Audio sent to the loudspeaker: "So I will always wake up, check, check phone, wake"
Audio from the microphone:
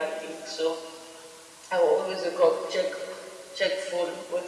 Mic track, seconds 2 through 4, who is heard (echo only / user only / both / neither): echo only